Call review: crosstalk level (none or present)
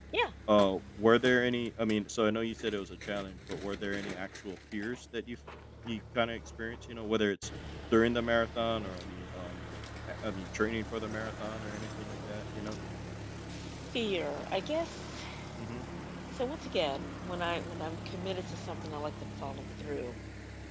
none